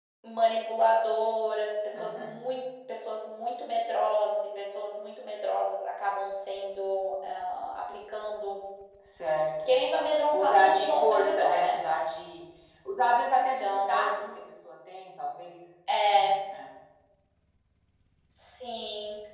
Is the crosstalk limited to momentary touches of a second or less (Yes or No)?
No